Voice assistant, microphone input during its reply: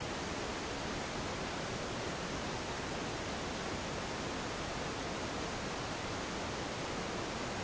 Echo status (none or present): none